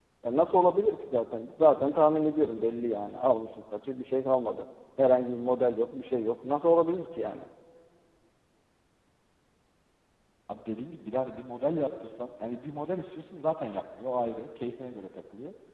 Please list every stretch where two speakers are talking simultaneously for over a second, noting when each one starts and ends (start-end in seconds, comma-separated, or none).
none